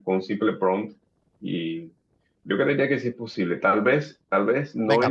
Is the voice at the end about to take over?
Yes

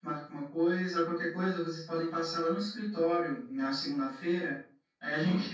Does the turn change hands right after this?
No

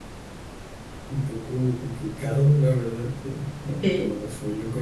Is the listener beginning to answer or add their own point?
No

